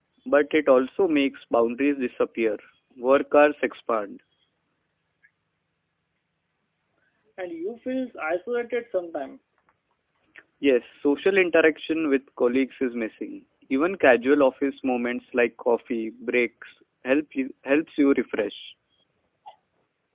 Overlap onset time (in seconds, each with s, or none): none